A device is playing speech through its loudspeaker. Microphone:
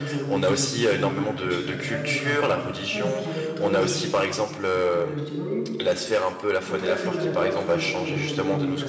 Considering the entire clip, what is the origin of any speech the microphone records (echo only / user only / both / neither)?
both